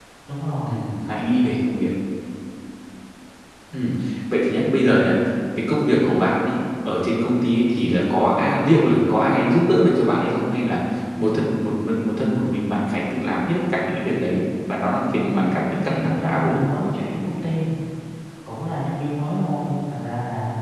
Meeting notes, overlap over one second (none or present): present